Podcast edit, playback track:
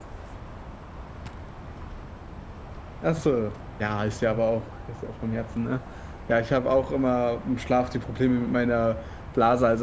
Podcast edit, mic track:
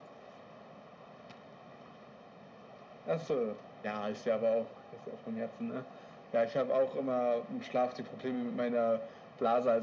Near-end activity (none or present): none